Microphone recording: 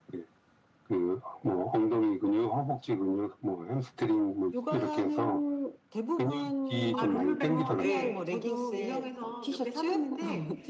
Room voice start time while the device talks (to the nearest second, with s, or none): 7 s